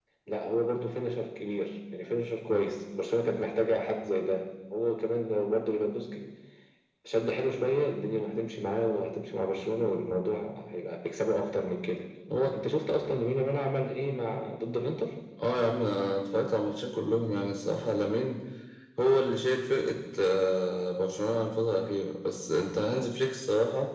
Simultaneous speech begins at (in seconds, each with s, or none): none